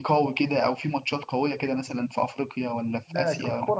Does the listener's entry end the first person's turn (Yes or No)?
Yes